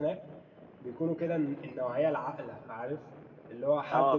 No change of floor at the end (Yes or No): Yes